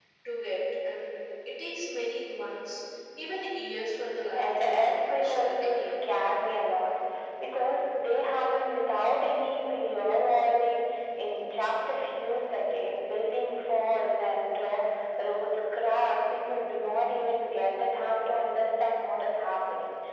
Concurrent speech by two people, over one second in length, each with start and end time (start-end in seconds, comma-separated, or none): 4.3-6.0